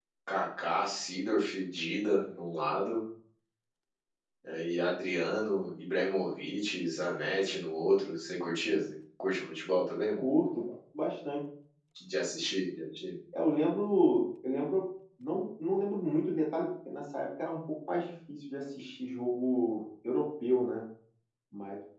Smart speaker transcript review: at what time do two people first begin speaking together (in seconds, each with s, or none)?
none